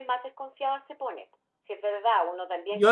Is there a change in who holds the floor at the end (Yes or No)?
No